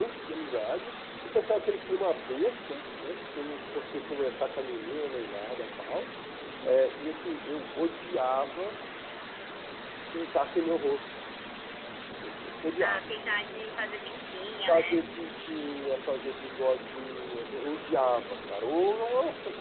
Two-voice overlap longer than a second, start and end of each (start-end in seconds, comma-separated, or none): none